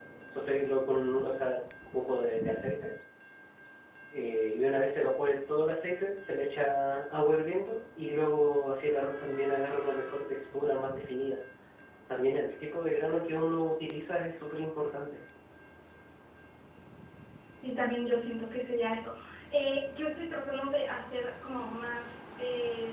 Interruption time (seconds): none

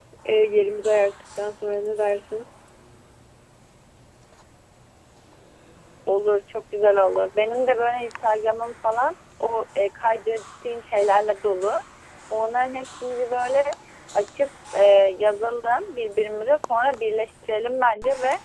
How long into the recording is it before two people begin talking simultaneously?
none

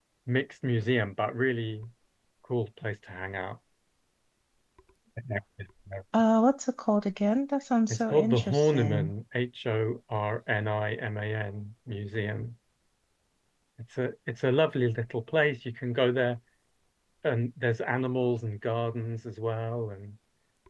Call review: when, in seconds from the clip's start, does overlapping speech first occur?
7.9 s

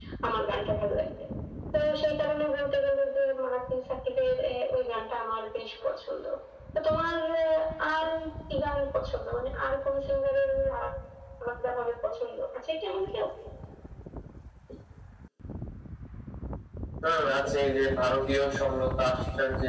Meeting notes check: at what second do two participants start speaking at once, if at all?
none

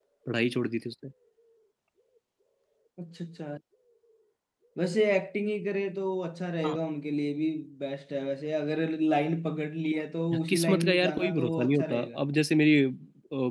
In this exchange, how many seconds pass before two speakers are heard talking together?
10.3 s

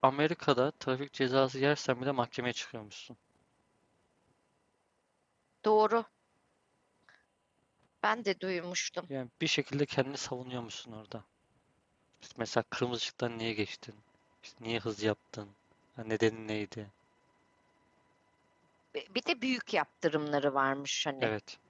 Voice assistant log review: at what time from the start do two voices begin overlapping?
none

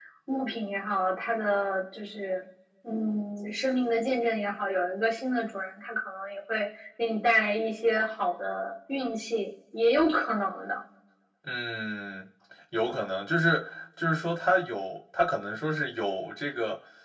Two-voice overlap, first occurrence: none

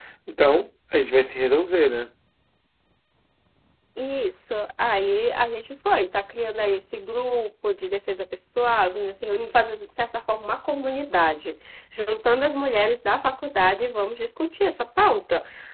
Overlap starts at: none

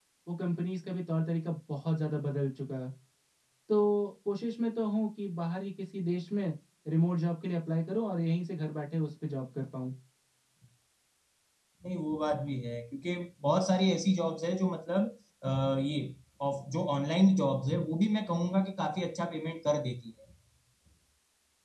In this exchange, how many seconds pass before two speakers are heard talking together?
none

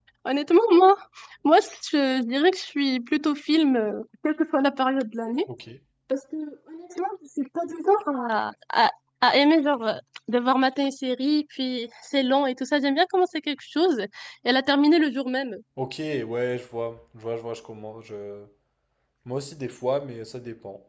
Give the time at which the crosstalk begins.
none

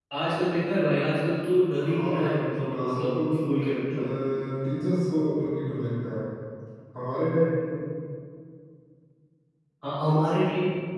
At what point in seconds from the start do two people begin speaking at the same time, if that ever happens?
1.8 s

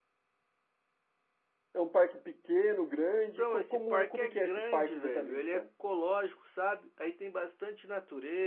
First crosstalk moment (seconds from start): 3.4 s

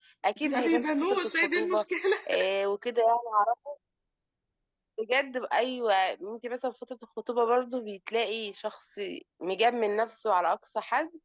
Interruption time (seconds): 0.5 s

